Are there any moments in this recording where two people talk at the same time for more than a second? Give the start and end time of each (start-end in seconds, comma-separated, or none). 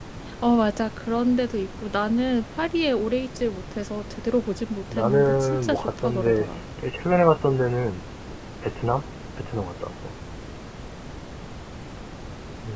4.9-6.5